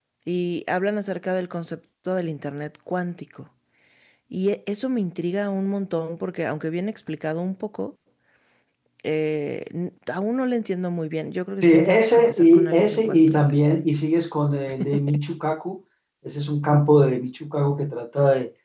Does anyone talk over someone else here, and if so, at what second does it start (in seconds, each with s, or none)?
11.6 s